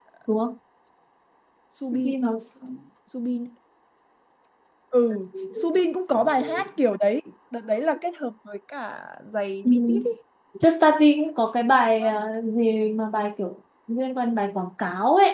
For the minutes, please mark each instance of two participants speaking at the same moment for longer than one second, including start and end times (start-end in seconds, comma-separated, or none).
none